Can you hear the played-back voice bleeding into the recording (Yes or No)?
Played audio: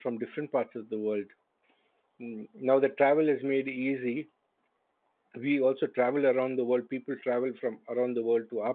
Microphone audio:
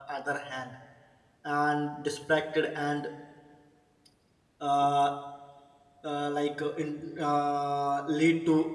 No